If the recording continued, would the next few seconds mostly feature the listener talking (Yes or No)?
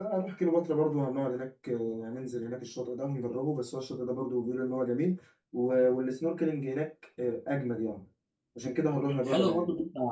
Yes